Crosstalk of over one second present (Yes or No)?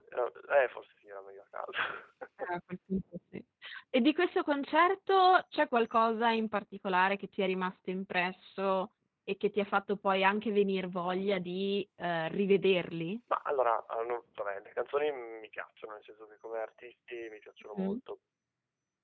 No